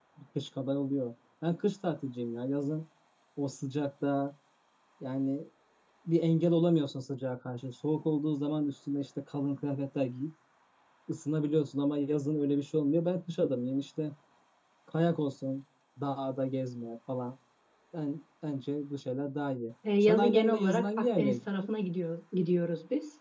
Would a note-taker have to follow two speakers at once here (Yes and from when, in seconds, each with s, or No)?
Yes, from 19.8 s